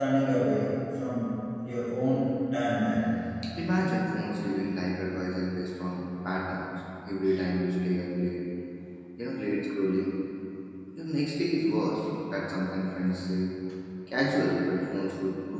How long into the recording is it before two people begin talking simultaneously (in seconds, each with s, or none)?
none